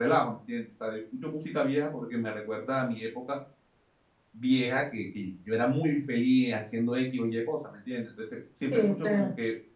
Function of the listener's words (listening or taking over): listening